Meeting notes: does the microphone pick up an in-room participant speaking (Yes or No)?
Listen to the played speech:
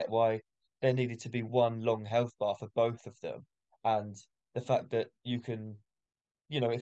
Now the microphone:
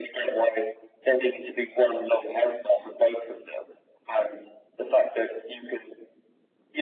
No